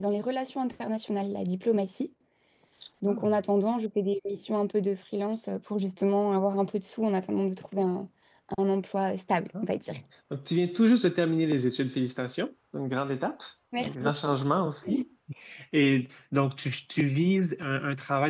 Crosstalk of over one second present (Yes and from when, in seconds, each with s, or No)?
No